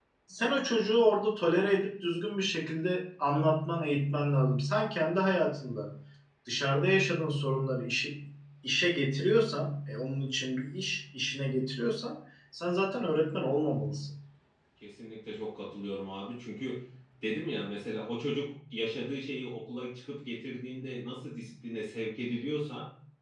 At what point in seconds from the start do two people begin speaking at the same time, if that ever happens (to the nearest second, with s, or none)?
none